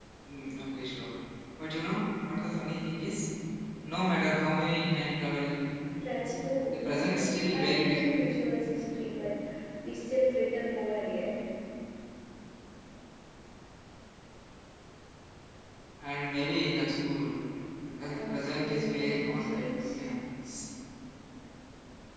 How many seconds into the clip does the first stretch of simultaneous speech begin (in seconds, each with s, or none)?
6.7 s